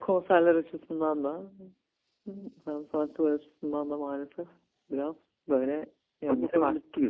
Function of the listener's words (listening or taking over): taking over